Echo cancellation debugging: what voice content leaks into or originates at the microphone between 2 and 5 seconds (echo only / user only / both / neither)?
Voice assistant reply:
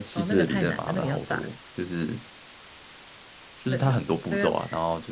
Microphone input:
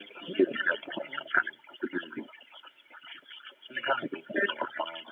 echo only